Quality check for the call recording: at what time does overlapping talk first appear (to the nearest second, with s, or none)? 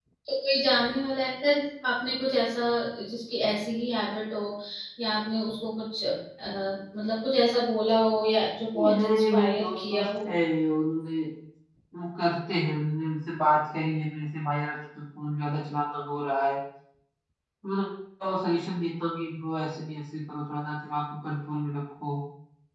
9 s